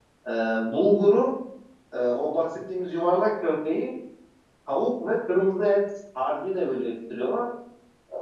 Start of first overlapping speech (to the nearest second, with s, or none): none